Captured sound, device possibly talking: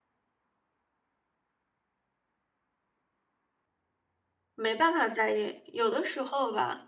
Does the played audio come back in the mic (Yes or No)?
No